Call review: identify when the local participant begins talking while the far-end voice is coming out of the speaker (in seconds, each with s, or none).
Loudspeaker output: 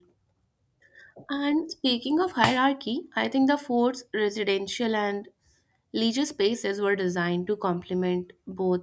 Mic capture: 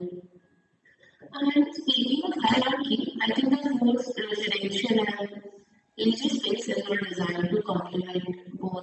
none